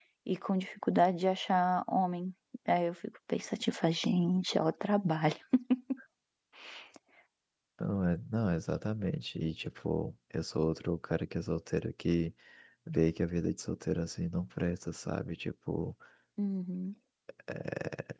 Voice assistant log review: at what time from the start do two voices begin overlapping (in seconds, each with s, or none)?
none